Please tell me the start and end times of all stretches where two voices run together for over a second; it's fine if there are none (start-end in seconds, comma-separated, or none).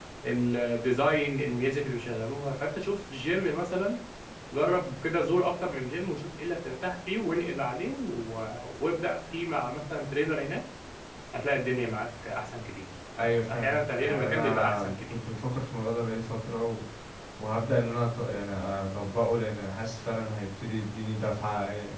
13.5-15.2